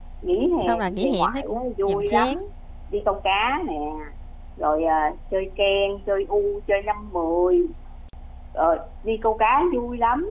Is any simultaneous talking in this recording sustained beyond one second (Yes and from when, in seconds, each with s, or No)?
Yes, from 0.7 s